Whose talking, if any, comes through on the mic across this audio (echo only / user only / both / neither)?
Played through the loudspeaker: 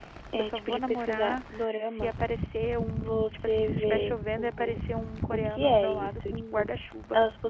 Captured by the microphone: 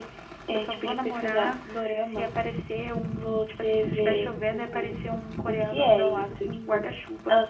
echo only